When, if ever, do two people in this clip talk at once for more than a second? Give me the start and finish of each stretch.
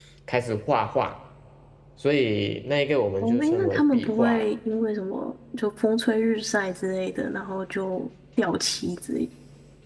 3.2-4.5

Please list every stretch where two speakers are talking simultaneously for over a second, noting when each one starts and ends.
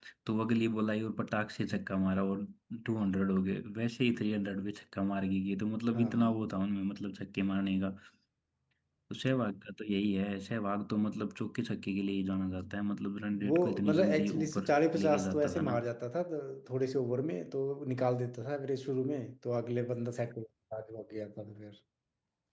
13.5-15.8

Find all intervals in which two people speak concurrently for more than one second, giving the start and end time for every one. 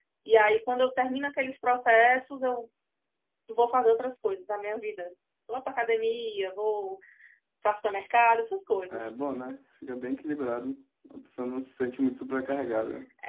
none

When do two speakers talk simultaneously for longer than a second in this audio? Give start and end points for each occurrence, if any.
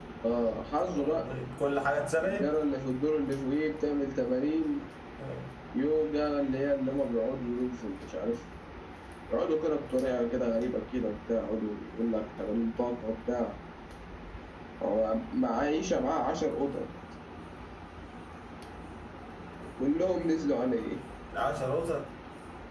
none

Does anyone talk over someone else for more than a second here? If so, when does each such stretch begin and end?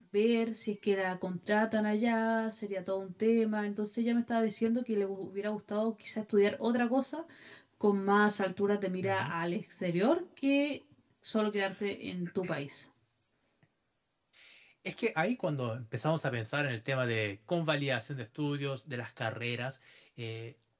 none

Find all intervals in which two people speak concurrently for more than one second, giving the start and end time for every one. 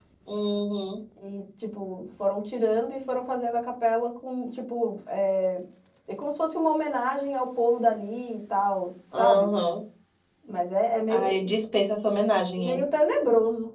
none

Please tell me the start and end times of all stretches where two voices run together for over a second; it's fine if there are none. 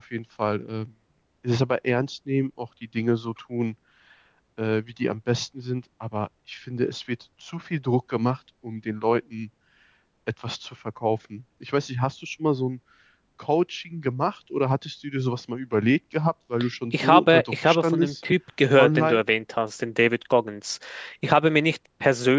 16.9-18.1

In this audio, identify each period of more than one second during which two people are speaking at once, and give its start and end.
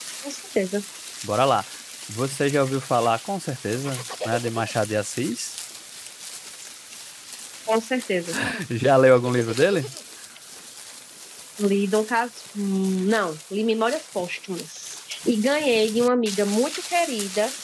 none

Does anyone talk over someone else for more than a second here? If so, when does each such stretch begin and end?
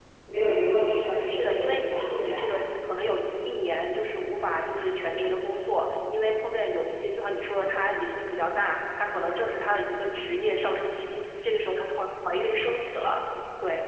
1.0-2.5

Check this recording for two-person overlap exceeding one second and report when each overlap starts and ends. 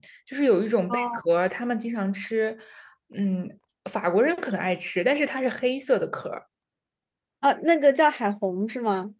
none

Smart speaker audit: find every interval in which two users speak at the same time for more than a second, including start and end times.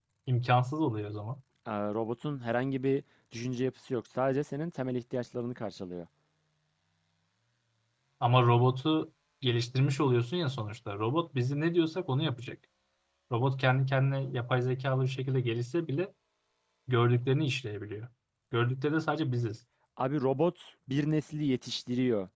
none

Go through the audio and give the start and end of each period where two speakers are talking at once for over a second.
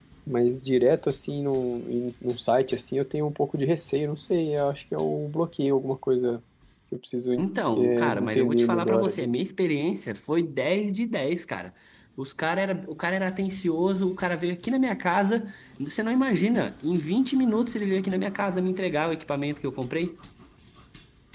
7.8-9.3

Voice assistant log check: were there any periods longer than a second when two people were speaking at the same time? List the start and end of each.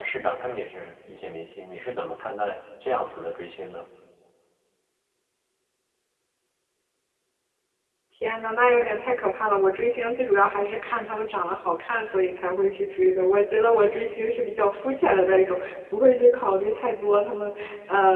none

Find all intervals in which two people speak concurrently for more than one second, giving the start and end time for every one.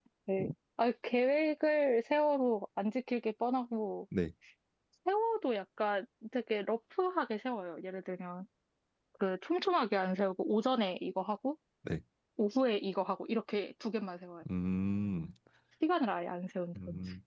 none

